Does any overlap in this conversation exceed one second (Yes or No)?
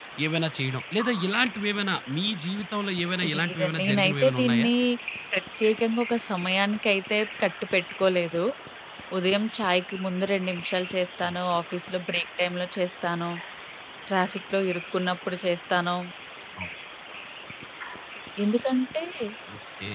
Yes